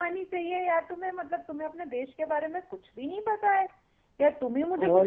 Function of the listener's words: listening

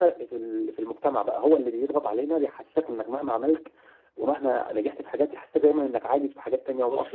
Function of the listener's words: taking over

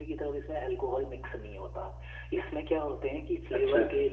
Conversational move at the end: listening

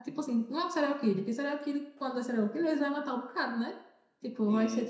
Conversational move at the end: taking over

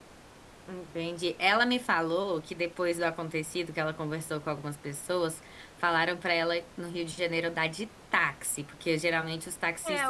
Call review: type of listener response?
taking over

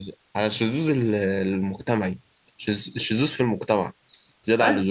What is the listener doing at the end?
taking over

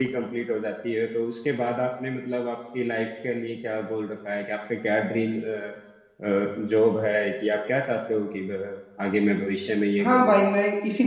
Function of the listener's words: taking over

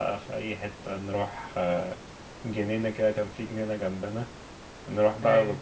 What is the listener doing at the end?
listening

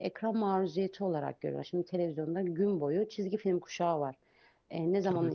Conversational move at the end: listening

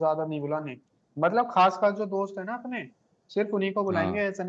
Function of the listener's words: listening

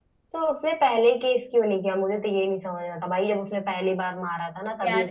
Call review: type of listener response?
taking over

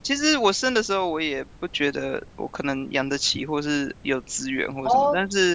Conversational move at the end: listening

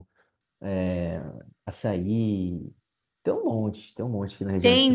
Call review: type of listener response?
taking over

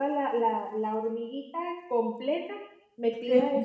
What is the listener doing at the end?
listening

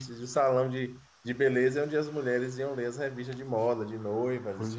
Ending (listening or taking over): taking over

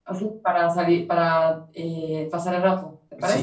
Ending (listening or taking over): taking over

